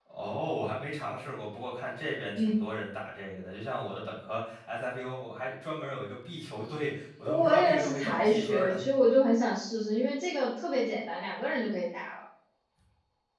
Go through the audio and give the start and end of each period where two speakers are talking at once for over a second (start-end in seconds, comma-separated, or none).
7.2-8.8